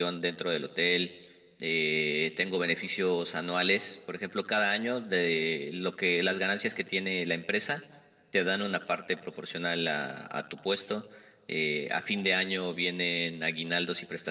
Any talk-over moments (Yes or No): No